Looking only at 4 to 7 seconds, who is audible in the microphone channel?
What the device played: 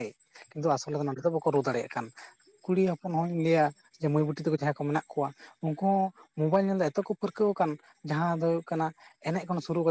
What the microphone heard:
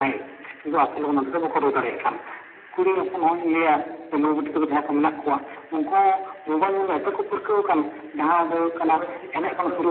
echo only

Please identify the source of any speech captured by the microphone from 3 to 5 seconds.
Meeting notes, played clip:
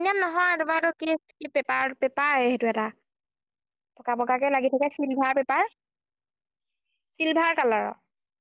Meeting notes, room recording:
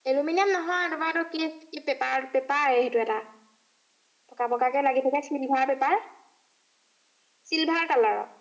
echo only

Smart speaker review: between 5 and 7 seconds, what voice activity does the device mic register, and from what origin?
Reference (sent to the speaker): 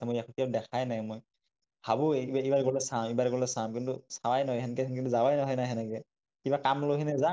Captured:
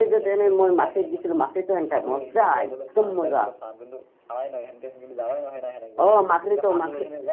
both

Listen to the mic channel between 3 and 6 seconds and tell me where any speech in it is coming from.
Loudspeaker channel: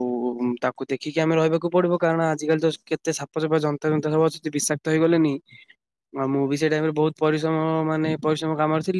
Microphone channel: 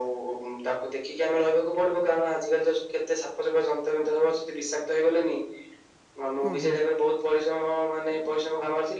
echo only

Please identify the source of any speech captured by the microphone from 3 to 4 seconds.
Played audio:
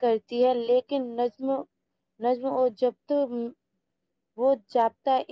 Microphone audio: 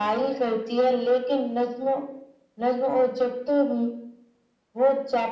echo only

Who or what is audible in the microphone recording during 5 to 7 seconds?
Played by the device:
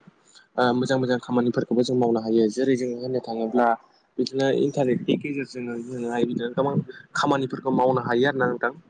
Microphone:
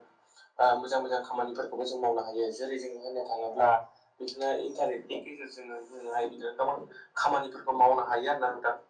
echo only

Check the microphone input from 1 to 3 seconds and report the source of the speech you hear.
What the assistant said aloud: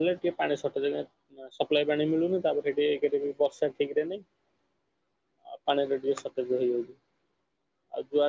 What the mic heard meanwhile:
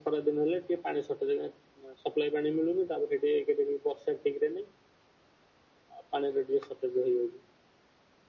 echo only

